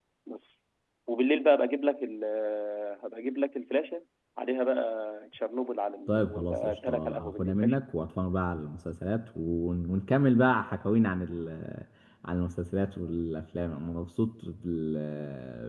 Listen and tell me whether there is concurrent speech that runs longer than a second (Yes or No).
Yes